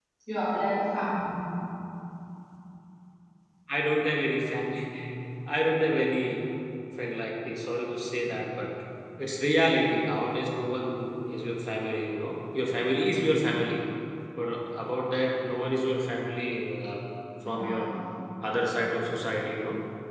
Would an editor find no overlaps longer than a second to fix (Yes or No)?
Yes